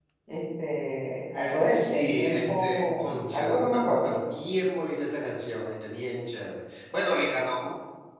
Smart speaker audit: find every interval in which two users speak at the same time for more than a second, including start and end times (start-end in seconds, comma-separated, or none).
1.4-4.1